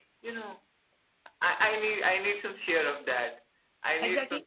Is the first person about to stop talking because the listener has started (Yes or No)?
Yes